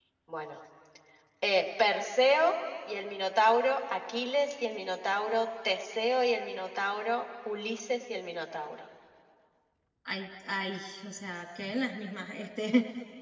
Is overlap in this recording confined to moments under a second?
Yes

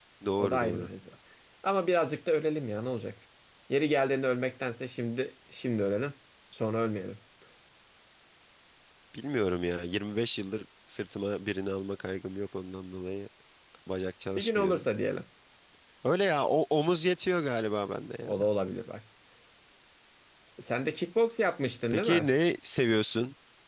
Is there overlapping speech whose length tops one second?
No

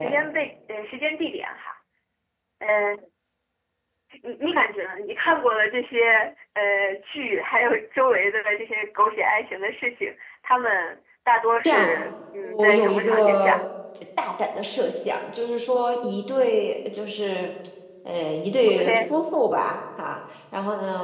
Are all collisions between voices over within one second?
No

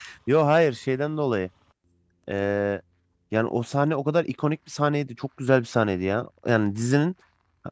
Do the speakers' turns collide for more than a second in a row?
No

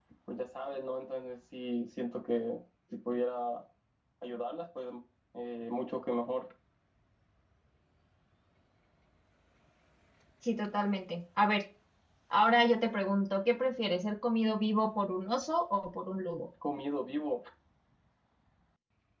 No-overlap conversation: Yes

